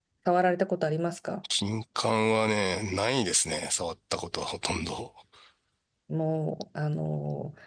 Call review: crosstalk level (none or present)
none